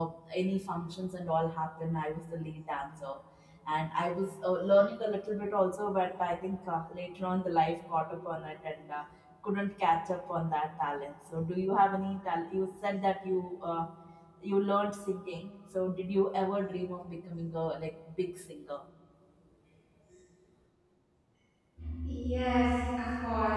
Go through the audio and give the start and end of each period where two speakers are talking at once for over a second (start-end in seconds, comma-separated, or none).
none